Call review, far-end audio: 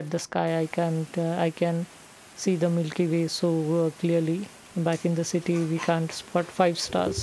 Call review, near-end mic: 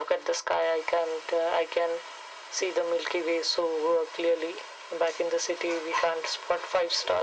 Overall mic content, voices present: echo only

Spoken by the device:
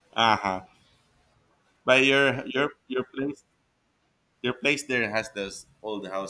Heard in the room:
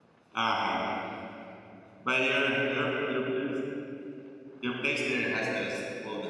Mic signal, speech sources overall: echo only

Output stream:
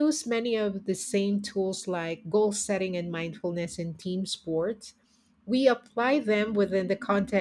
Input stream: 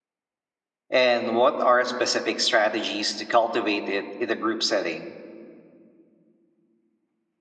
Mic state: user only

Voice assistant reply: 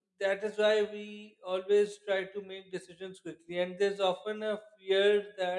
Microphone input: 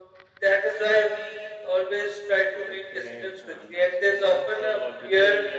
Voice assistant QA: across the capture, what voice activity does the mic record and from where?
both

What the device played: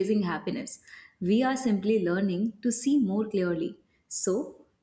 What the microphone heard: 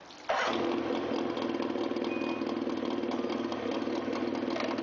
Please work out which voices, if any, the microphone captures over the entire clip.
neither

